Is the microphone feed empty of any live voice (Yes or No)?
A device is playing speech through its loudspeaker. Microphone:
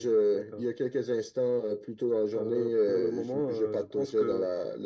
Yes